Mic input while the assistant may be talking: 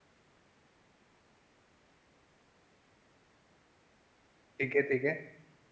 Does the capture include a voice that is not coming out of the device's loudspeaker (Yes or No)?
Yes